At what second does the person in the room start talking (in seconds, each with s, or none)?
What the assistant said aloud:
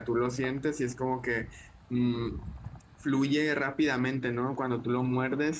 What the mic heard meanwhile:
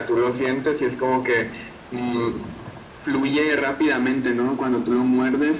none